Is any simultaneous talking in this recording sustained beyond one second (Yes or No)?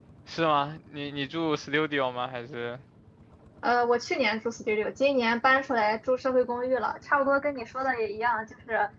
No